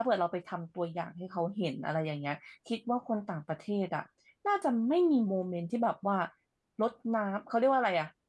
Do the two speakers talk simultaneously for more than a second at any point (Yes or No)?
No